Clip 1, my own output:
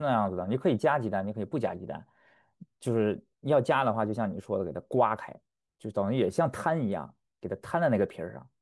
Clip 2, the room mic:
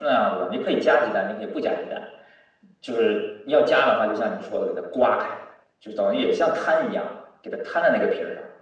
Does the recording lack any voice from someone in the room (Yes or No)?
Yes